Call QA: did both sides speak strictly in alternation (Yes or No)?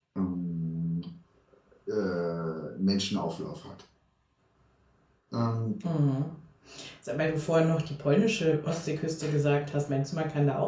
Yes